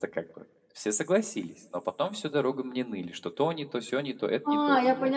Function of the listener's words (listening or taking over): taking over